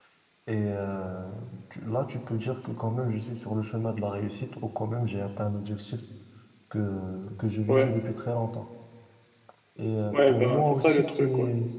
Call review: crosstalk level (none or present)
present